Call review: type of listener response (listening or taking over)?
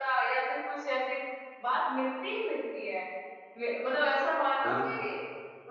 listening